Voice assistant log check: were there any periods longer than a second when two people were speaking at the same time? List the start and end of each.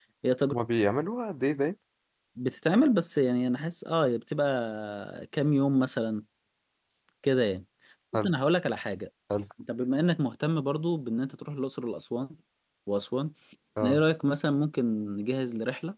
none

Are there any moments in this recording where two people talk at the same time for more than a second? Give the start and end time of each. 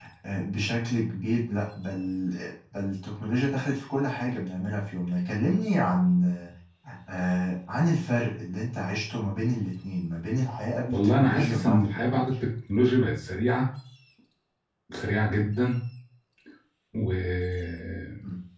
10.9-12.3

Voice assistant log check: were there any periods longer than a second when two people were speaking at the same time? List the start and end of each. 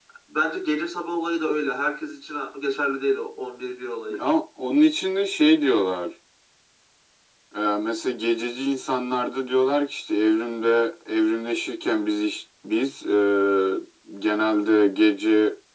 none

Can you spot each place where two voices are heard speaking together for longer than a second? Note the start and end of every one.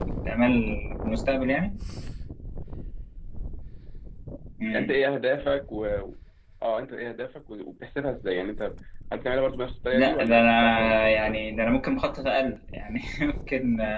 9.9-11.4

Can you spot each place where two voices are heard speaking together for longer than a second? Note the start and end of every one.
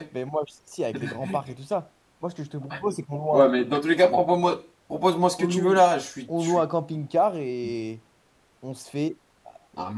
none

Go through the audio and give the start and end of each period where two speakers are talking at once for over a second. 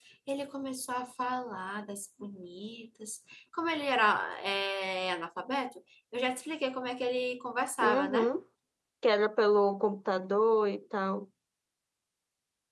none

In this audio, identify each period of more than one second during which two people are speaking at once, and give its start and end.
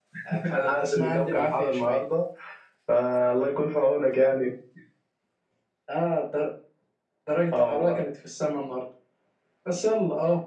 0.6-2.0

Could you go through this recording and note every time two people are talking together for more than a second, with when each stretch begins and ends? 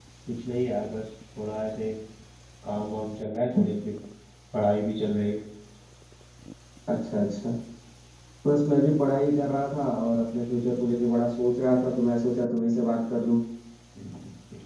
none

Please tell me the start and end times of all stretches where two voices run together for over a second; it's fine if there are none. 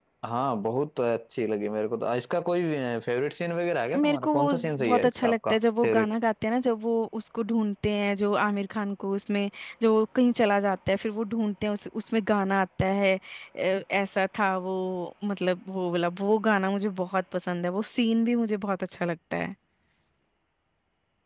4.0-6.1

